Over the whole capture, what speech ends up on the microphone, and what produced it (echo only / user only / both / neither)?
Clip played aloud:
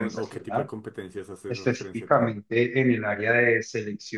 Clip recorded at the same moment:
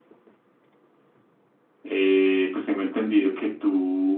user only